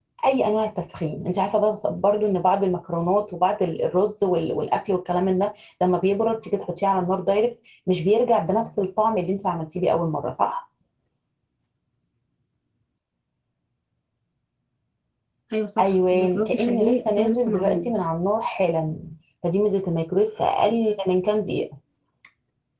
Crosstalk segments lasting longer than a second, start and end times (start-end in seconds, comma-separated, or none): 15.8-17.9